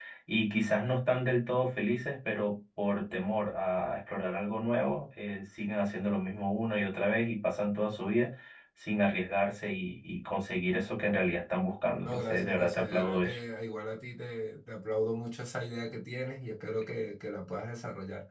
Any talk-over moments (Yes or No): Yes